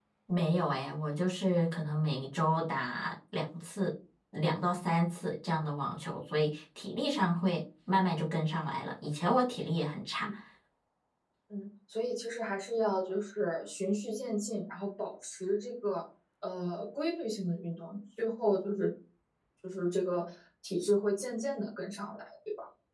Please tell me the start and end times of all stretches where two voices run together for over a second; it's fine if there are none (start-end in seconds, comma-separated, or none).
none